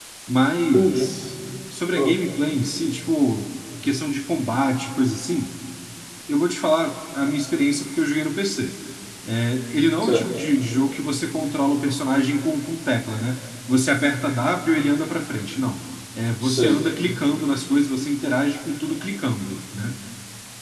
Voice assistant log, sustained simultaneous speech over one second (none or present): none